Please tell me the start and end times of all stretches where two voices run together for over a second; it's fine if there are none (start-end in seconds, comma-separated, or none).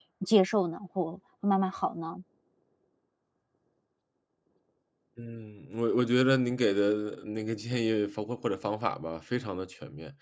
none